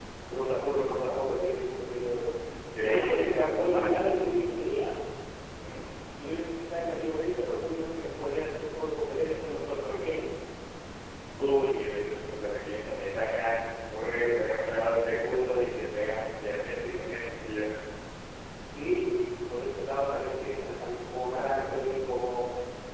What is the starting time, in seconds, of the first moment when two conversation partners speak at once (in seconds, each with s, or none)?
2.7 s